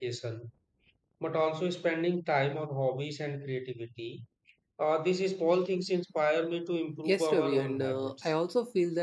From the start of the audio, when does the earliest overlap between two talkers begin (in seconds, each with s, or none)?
7.0 s